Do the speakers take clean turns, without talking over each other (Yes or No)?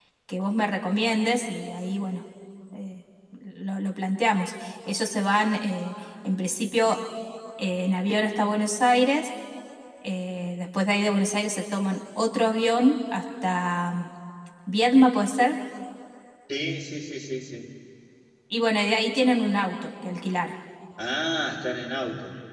Yes